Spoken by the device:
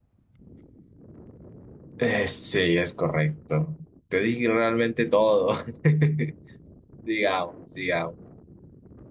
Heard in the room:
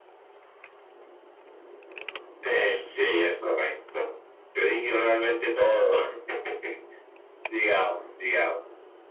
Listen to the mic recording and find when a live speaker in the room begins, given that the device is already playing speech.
none

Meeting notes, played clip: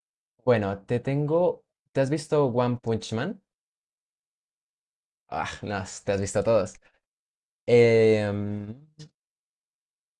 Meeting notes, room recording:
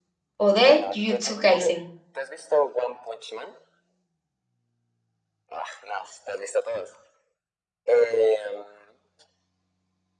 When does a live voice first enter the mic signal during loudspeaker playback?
0.5 s

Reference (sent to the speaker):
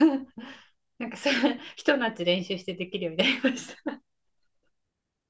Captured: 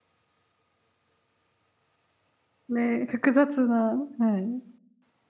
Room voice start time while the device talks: 2.7 s

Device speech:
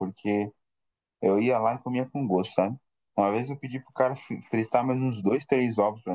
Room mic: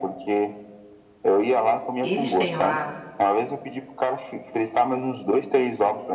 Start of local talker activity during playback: 2.0 s

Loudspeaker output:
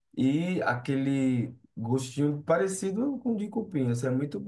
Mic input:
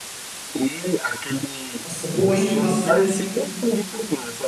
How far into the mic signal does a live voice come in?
1.8 s

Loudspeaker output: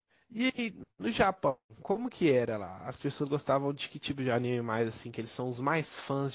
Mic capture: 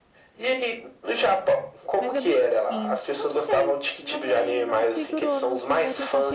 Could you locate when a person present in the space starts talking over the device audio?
2.0 s

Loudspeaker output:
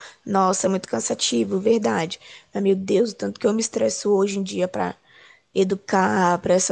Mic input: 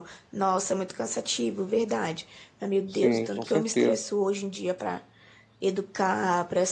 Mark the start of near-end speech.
2.9 s

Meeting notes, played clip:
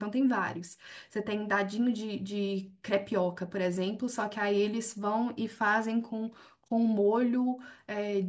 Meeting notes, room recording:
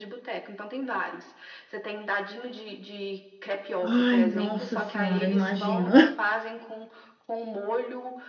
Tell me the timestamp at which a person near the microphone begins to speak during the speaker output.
3.8 s

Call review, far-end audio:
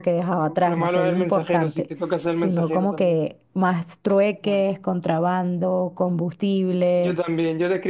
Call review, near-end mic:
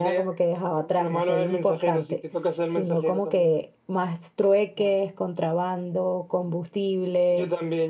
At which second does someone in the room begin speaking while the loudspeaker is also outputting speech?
none

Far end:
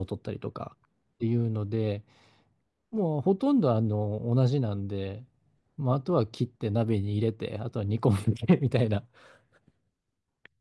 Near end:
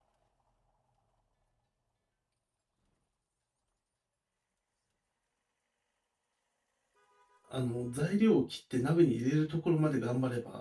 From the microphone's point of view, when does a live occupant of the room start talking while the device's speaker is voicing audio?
7.5 s

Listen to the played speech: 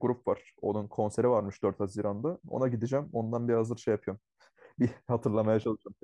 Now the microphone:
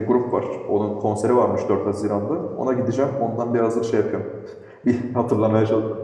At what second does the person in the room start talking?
none

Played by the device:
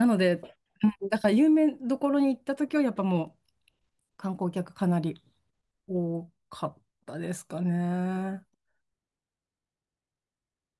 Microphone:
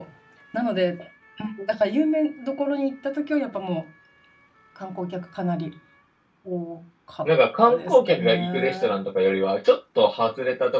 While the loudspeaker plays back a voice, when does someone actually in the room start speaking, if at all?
7.2 s

